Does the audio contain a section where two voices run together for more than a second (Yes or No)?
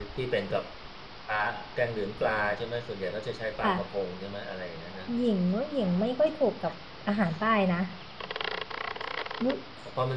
No